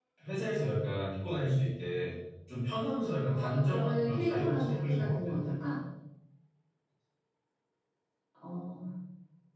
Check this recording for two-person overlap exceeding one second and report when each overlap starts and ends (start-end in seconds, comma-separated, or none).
3.3-5.3